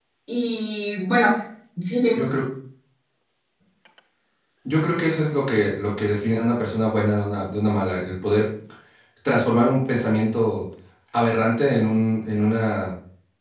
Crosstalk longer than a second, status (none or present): none